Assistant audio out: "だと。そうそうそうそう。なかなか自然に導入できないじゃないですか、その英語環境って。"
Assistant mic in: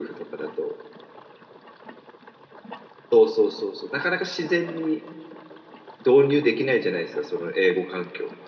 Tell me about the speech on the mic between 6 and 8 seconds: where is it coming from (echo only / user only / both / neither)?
echo only